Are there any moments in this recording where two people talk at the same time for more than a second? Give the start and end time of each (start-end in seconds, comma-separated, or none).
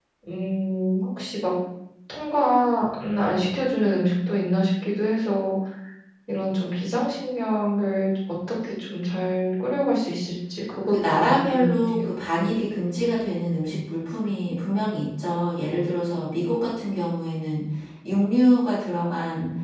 10.8-12.1